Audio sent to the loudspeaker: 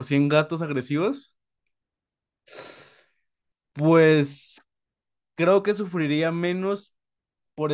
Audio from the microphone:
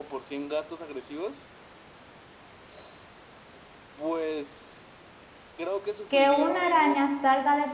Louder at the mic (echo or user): user